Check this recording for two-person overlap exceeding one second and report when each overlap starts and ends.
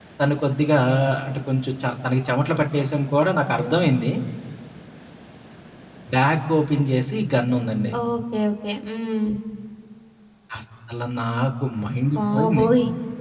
none

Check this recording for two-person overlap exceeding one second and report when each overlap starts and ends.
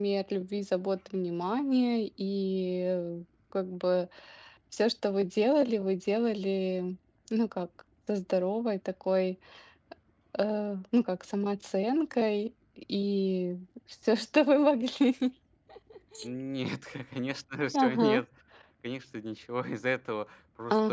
none

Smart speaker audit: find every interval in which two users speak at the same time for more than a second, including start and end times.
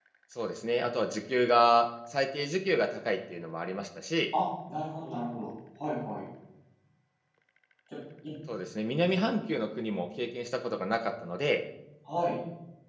none

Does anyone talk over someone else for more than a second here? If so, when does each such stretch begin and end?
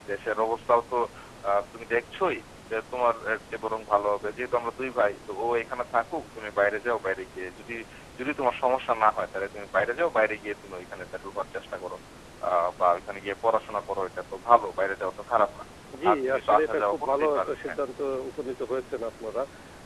16.1-17.8

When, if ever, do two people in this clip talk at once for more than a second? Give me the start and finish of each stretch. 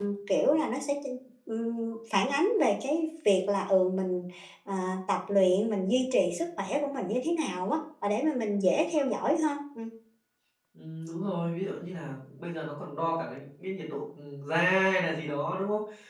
none

